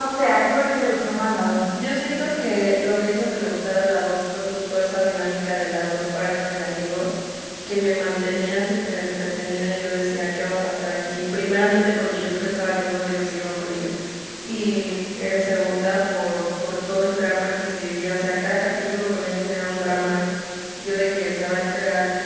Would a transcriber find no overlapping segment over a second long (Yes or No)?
Yes